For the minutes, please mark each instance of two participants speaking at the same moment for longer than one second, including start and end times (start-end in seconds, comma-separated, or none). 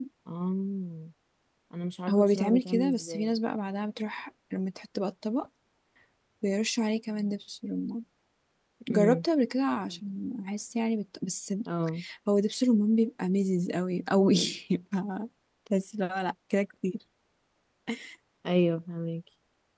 2.1-3.4